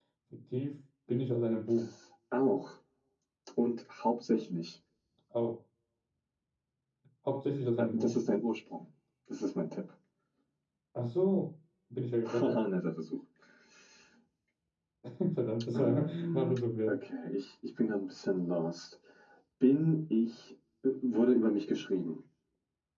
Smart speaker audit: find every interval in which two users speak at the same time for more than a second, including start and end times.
15.8-17.0

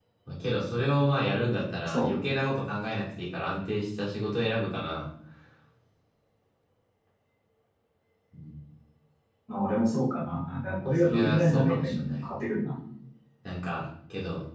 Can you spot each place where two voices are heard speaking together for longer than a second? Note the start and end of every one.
10.8-12.2

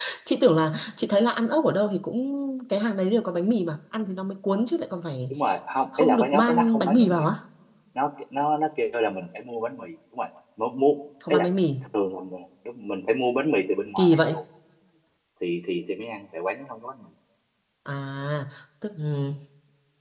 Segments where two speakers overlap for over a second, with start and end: 6.0-7.2

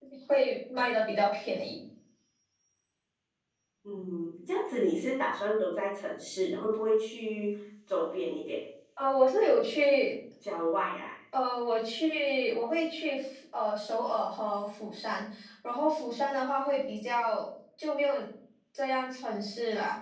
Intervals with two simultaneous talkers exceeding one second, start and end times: none

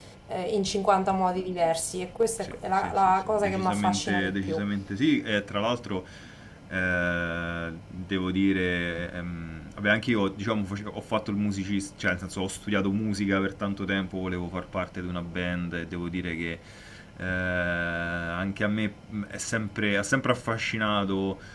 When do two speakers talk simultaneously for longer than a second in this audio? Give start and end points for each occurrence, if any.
2.4-4.6

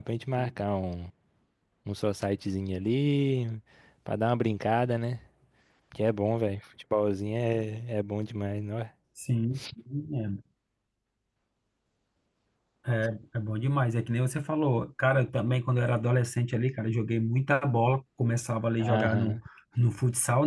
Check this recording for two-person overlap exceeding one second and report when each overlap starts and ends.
none

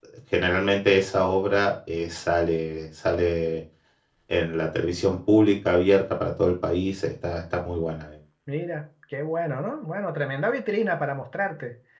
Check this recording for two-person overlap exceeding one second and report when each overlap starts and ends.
none

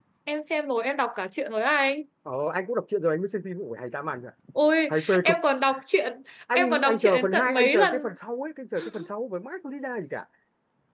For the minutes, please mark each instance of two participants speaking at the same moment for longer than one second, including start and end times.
6.5-8.0

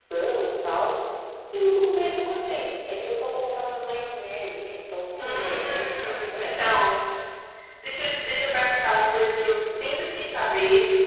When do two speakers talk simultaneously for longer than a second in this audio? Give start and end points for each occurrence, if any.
5.2-6.5

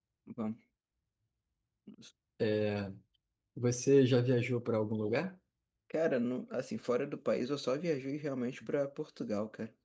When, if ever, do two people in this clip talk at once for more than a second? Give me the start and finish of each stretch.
none

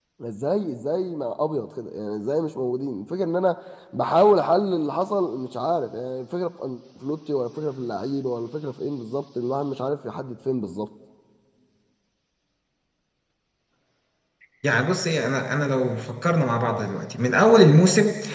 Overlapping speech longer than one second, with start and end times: none

